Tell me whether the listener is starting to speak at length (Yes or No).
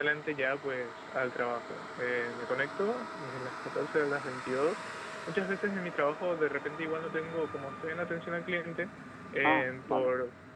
No